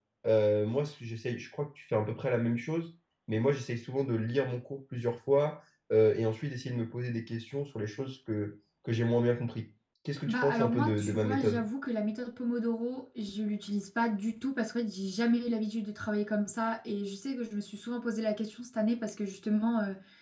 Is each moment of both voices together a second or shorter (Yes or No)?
No